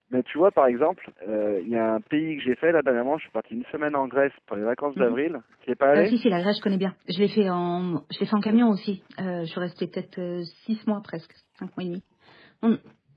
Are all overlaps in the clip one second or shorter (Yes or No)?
Yes